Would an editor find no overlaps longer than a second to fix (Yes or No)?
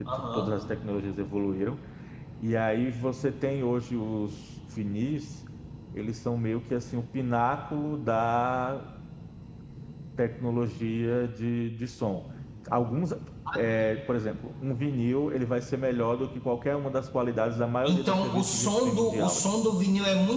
No